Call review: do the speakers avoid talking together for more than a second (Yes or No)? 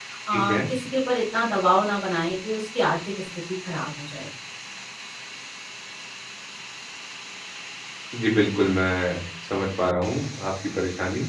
Yes